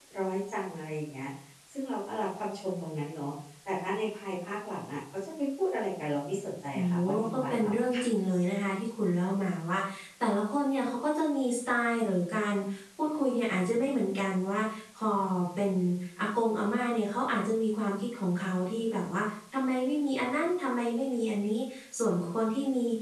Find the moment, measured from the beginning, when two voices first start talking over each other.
6.7 s

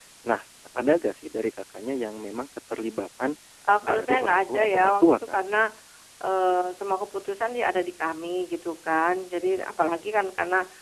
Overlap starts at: 3.9 s

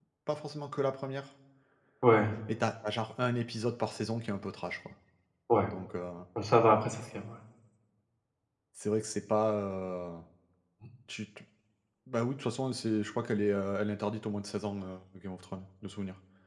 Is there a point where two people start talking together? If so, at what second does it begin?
none

